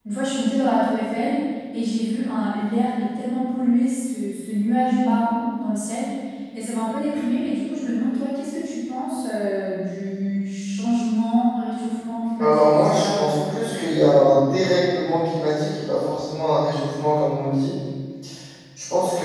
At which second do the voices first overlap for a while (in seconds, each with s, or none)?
12.4 s